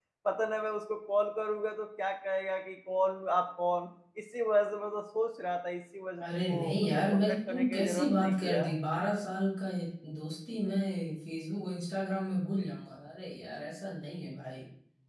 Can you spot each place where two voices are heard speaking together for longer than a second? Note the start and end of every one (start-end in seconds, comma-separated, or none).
6.2-8.6